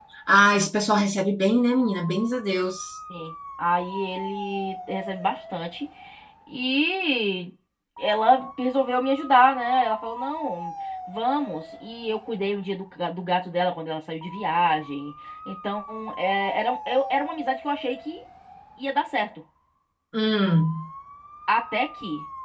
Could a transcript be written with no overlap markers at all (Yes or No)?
Yes